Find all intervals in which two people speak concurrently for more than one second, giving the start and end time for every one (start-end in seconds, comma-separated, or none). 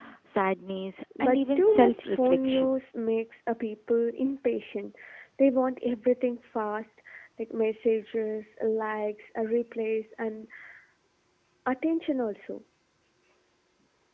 1.2-2.8